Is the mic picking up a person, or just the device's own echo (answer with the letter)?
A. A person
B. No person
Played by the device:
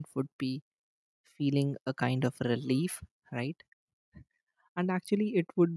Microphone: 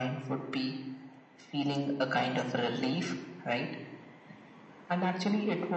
B